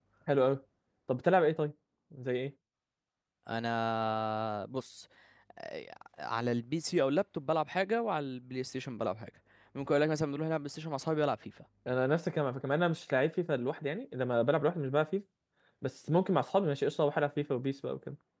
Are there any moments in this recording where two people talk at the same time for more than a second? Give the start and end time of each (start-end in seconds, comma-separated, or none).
none